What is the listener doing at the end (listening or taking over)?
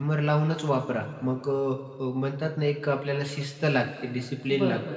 taking over